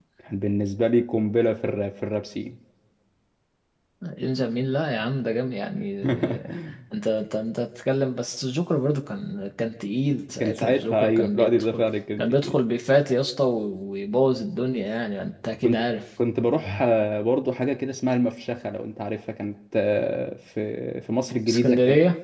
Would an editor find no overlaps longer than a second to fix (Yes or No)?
No